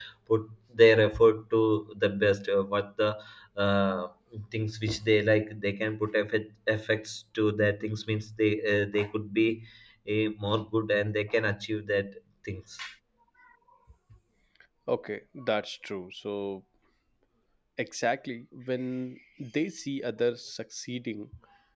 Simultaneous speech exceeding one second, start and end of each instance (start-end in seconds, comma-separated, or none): none